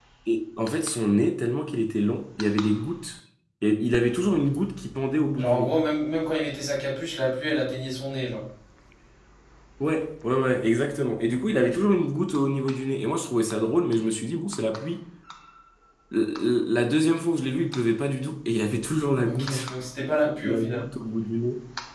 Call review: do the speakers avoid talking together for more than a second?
Yes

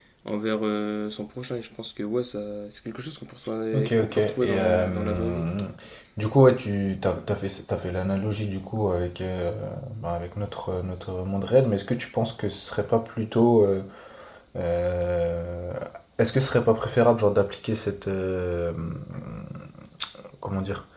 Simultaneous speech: Yes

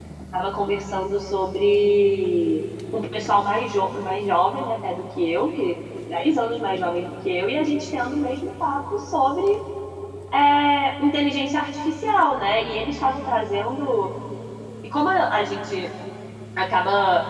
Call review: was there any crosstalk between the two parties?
No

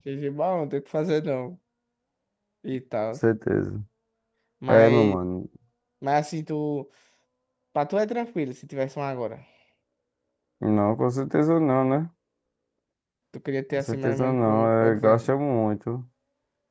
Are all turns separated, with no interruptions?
No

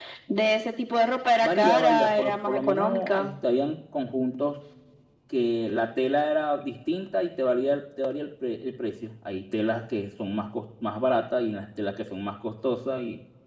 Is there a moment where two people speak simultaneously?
Yes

